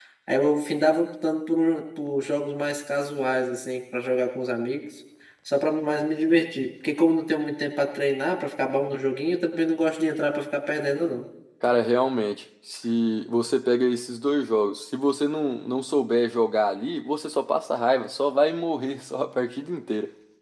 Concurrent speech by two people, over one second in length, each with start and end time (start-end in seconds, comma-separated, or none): none